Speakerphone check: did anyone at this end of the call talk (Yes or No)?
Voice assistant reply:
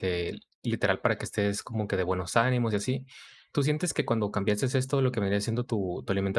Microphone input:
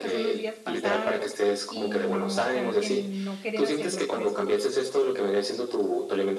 Yes